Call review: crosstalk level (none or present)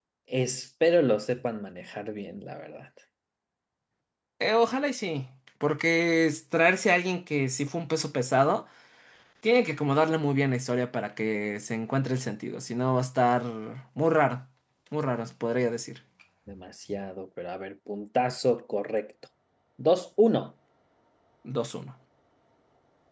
none